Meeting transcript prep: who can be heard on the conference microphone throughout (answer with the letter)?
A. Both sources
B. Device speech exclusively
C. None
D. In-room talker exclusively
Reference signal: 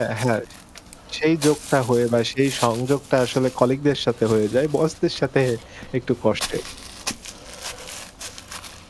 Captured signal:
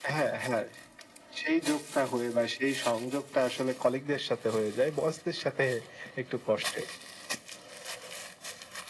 B